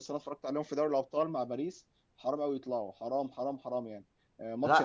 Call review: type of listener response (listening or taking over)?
listening